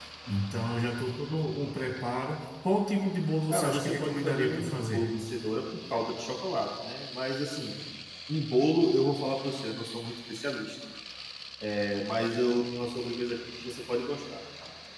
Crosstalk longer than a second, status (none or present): present